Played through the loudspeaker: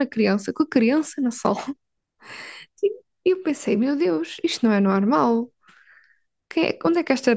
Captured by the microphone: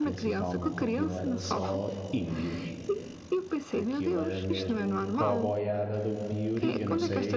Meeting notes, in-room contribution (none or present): present